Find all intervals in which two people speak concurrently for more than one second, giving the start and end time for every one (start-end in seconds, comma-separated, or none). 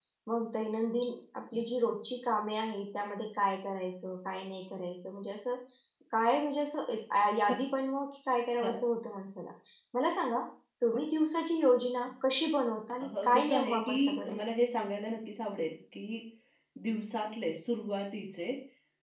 13.0-14.4